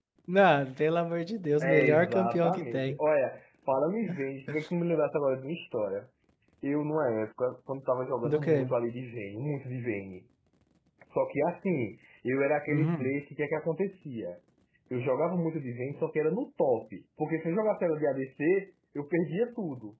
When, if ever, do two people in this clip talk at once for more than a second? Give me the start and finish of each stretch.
1.6-3.0

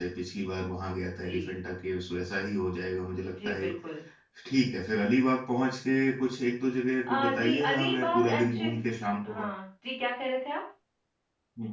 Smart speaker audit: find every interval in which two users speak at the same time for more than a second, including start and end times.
7.2-8.8

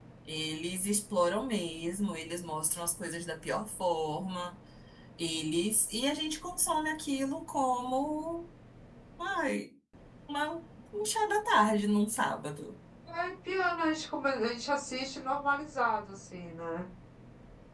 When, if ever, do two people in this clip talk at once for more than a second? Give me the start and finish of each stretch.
none

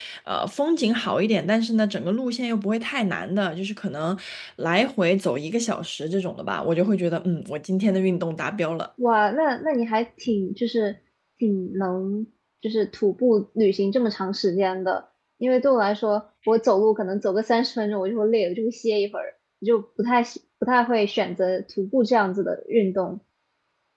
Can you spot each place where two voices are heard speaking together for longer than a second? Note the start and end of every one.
none

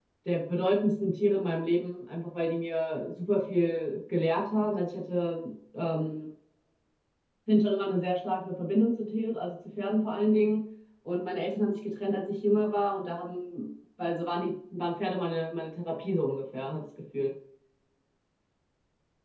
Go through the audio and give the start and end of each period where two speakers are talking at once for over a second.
none

